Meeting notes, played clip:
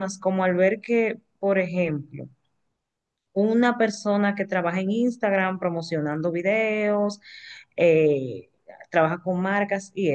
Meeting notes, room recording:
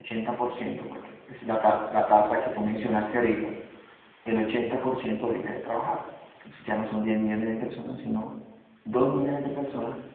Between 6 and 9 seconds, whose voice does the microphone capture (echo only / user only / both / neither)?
user only